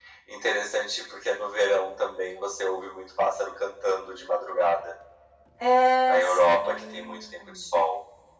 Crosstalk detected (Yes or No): Yes